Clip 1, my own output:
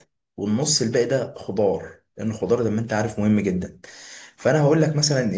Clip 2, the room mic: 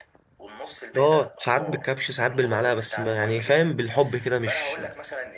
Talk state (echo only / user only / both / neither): both